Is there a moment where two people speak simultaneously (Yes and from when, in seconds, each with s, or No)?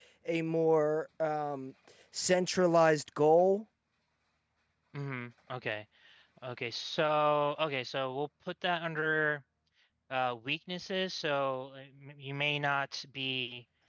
No